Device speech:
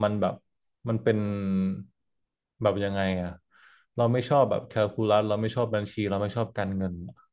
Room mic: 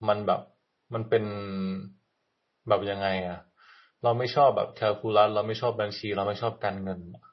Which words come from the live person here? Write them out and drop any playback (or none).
none